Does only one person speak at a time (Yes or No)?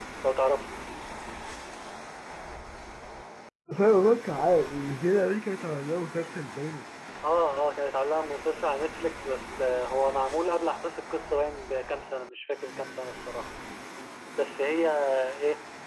Yes